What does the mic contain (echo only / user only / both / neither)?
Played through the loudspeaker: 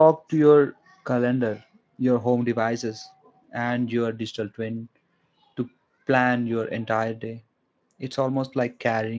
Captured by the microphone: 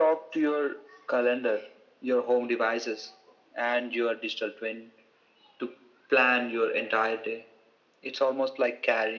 echo only